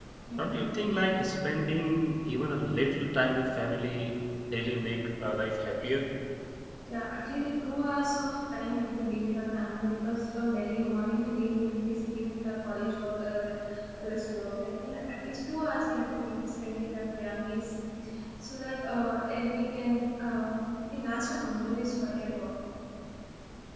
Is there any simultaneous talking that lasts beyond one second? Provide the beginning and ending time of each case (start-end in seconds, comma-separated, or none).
none